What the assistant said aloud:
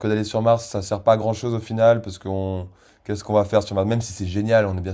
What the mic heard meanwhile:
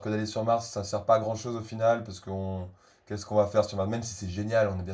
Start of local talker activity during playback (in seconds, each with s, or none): none